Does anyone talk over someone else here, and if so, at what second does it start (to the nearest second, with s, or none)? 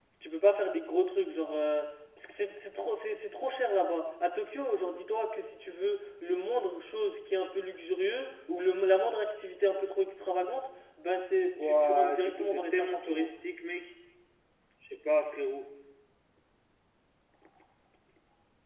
12 s